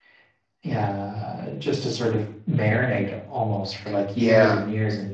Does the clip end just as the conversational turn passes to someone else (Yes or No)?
No